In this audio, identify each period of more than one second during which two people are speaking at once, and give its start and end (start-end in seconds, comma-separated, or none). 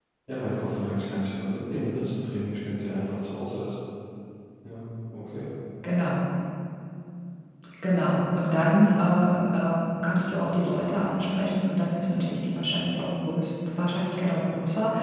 none